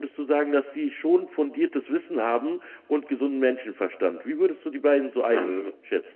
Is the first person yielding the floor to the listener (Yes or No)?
Yes